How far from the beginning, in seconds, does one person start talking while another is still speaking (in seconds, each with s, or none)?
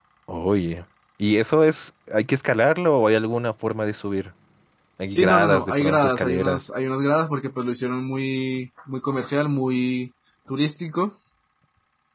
5.1 s